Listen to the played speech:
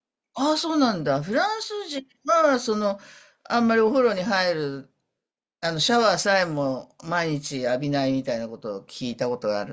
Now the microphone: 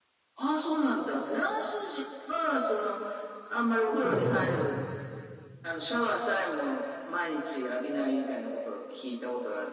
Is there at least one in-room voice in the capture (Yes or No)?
Yes